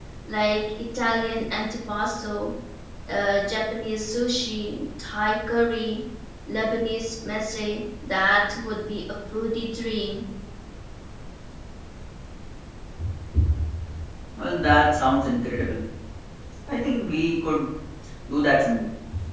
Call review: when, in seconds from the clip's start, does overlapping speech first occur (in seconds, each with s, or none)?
none